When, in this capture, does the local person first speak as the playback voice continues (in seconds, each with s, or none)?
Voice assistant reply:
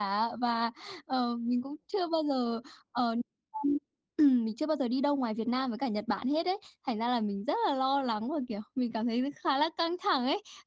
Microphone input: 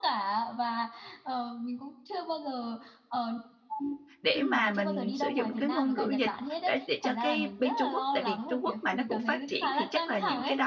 4.2 s